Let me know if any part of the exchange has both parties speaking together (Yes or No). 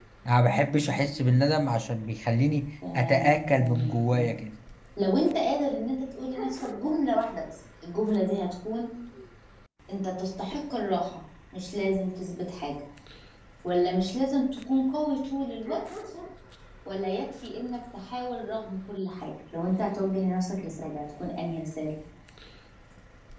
Yes